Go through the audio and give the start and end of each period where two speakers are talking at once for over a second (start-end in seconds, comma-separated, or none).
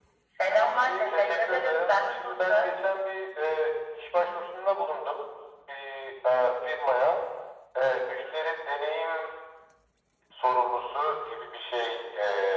0.8-2.7